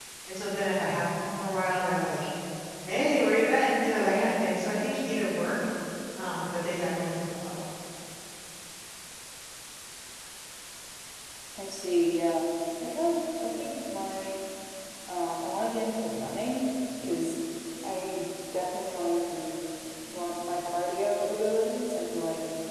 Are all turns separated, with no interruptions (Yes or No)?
Yes